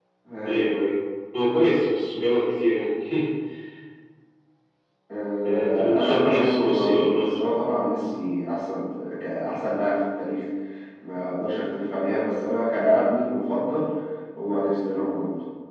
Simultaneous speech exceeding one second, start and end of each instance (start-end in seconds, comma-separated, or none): 5.4-7.4